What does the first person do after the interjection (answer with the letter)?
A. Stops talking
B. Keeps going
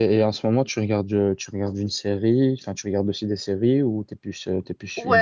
A